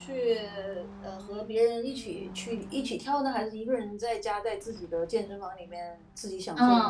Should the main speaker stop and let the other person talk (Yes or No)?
Yes